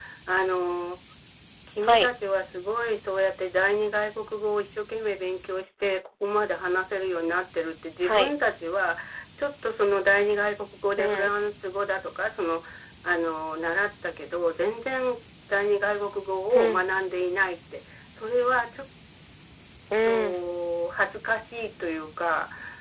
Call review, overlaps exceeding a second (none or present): none